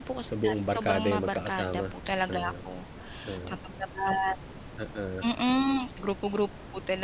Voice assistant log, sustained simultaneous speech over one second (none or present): present